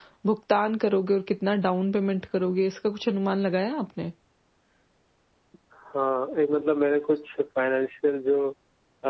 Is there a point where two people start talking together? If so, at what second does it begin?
none

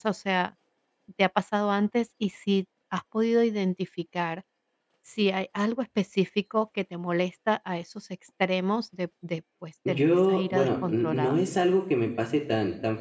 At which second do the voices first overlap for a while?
9.8 s

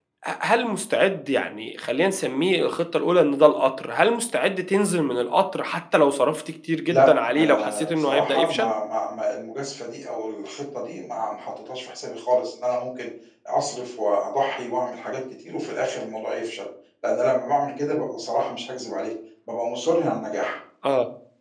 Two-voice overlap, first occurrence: 6.9 s

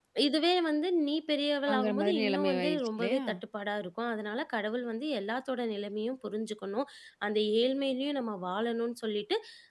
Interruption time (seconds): 1.7 s

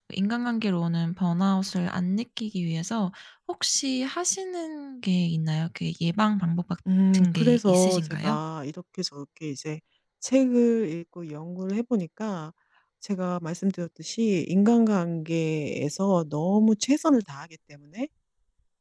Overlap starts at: 7.1 s

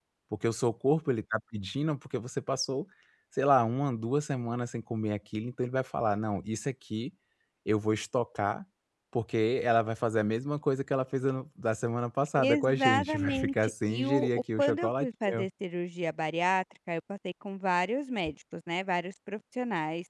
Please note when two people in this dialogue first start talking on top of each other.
12.4 s

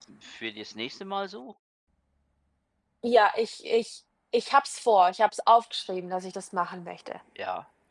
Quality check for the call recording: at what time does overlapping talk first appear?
none

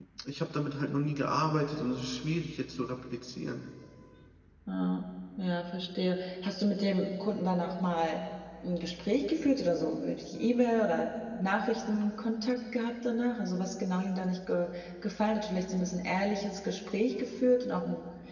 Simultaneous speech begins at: none

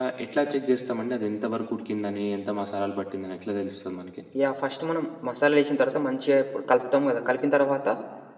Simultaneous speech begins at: none

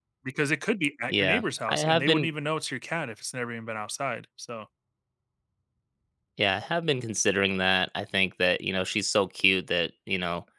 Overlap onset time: 1.1 s

